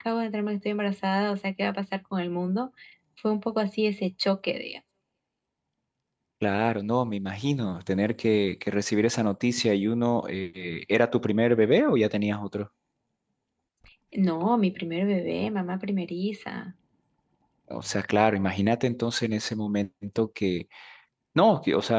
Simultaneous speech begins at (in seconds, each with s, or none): none